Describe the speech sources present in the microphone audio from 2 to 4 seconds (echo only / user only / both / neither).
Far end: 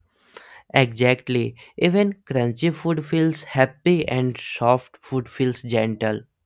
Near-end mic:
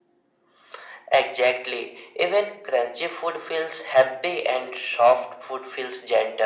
echo only